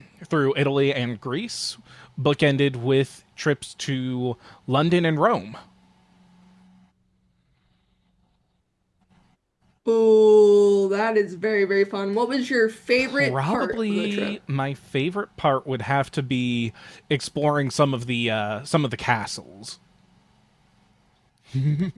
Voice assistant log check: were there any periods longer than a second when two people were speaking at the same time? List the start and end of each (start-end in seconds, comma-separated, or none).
13.0-14.3